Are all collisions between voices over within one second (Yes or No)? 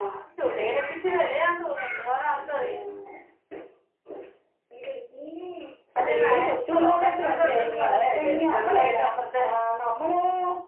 No